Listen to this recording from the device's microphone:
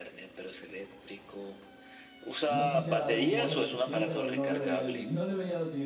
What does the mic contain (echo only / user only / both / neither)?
both